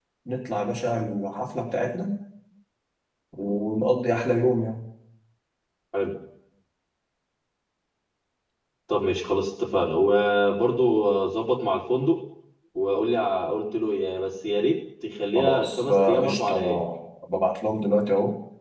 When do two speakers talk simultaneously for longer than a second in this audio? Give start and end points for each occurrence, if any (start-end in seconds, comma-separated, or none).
15.3-16.8